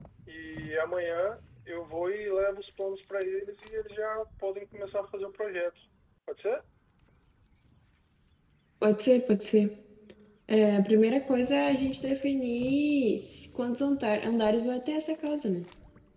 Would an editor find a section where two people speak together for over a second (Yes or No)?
No